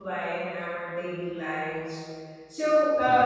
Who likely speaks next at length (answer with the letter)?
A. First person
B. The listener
A